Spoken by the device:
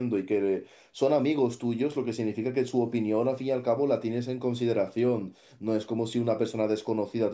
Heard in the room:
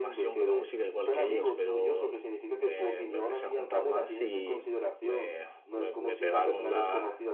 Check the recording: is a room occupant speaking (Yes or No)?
Yes